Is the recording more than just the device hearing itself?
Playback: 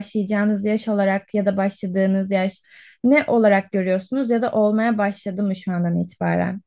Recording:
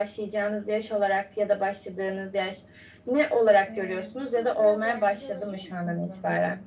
Yes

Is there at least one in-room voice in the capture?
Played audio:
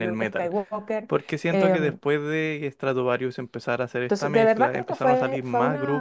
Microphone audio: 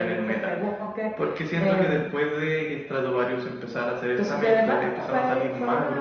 No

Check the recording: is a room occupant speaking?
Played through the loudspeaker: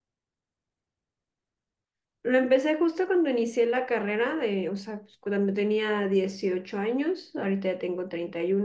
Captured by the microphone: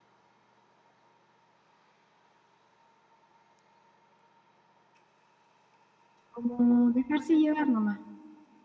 Yes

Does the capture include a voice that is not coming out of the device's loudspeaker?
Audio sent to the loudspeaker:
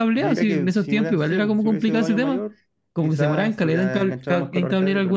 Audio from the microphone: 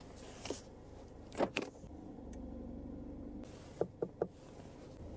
No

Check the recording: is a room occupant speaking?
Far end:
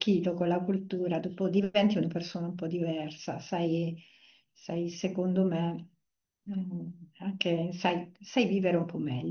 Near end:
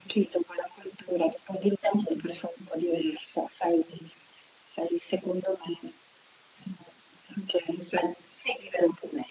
No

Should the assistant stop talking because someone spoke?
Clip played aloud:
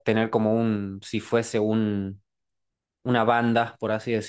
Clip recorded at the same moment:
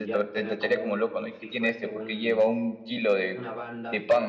Yes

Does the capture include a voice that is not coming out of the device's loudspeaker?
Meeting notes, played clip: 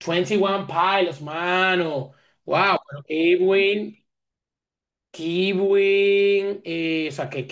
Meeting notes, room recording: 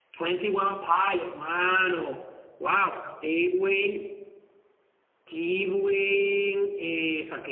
No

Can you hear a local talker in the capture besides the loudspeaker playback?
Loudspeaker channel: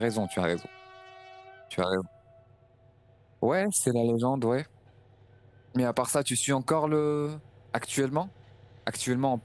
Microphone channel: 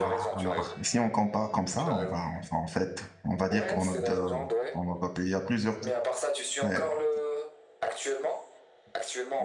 Yes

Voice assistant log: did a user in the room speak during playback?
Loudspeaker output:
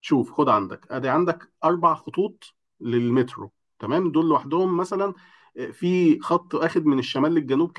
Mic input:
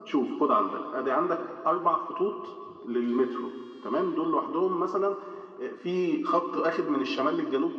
No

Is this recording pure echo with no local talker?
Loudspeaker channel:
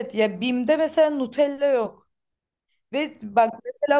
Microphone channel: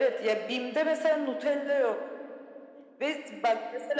Yes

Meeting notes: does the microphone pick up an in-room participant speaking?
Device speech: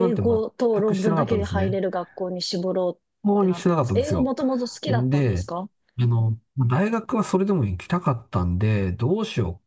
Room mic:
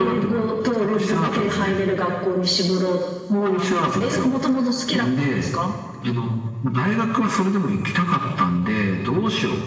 No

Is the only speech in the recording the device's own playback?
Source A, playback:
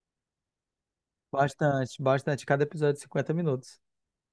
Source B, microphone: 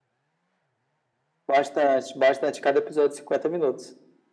Yes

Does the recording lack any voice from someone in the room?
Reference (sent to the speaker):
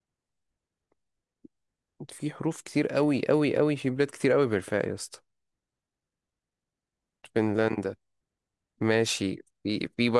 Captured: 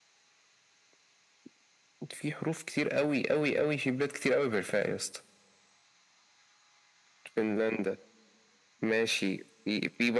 Yes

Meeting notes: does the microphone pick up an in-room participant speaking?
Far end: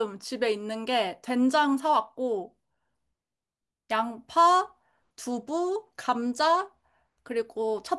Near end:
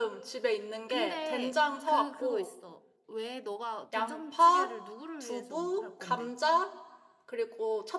Yes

